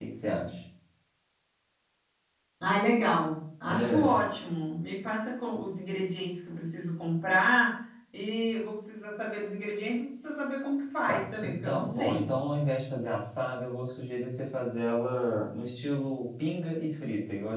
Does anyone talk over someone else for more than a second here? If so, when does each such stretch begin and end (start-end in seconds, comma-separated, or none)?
11.1-12.3